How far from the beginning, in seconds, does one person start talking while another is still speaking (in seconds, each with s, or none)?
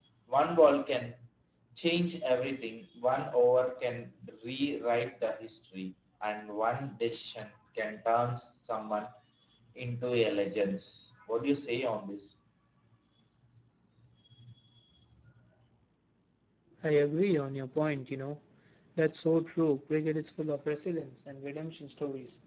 none